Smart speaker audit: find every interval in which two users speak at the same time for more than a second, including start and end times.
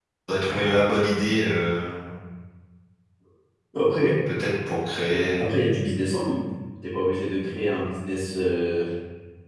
none

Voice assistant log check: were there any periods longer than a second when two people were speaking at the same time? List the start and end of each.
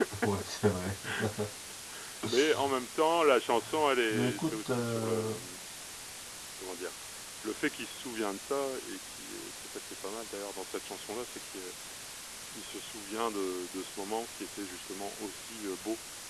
4.1-5.3

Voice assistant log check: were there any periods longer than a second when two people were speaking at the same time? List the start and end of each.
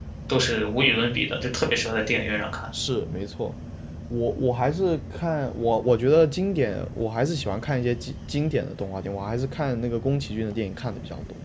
none

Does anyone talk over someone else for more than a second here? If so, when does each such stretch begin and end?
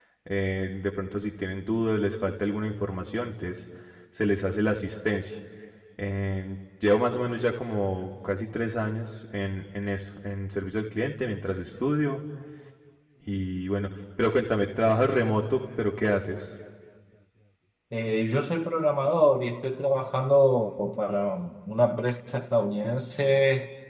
none

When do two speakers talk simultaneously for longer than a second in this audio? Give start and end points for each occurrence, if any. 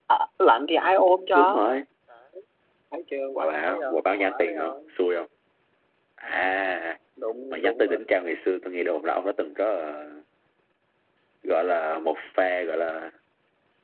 3.4-4.8

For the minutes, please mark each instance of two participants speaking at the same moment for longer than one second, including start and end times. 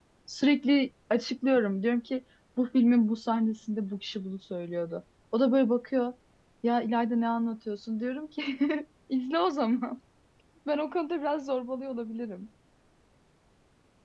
none

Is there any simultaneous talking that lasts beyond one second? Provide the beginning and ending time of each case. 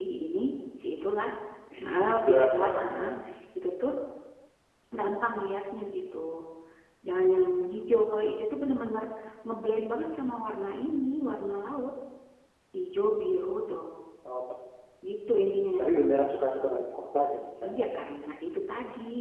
1.8-3.0

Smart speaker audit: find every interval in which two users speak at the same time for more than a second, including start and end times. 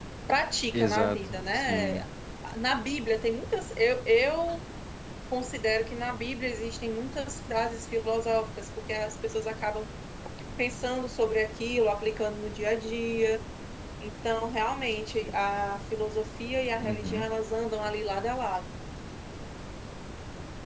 0.7-2.0

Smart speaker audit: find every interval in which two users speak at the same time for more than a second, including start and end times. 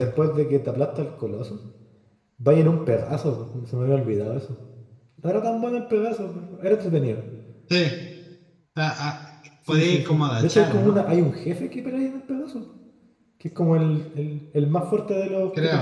9.7-11.0

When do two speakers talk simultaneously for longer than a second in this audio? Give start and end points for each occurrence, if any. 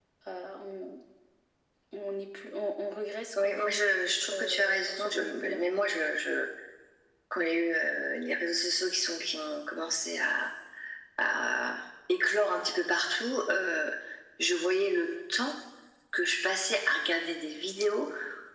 4.3-5.6

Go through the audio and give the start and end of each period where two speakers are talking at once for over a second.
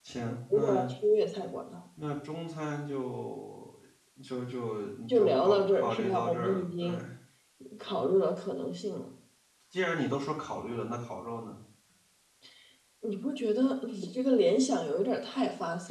5.1-6.9

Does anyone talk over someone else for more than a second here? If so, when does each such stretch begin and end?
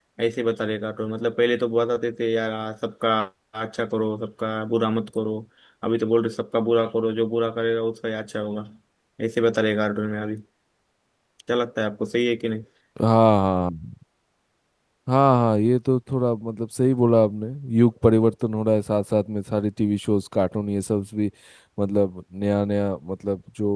none

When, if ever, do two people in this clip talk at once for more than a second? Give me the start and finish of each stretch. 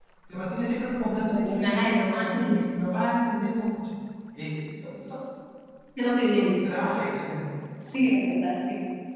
1.2-2.5

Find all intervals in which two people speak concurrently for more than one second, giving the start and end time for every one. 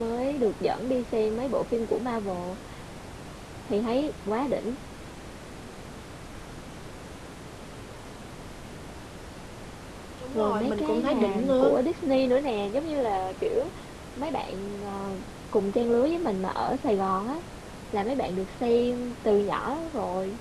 10.3-11.8

